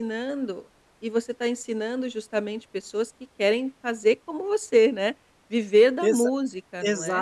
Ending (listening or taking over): taking over